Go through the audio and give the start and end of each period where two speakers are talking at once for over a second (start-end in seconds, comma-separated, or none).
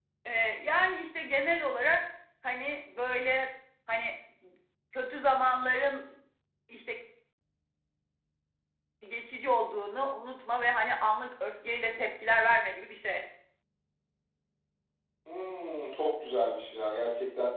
none